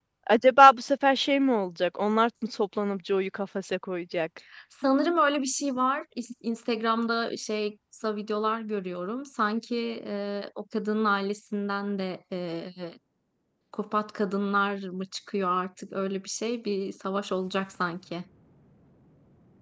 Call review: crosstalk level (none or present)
none